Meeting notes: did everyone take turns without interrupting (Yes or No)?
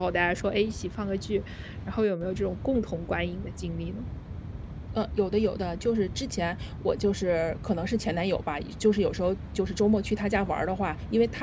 Yes